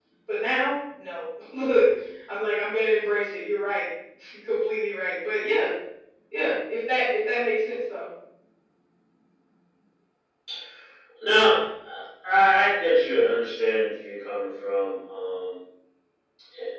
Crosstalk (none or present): none